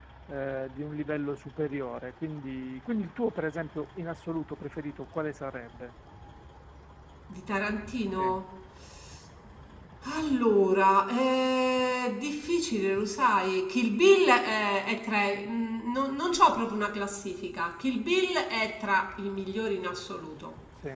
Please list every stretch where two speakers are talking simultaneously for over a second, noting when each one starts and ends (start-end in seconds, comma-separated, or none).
none